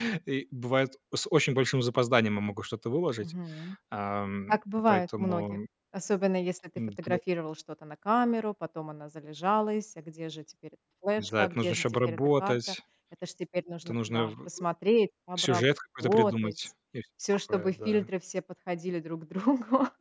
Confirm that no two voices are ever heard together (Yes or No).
No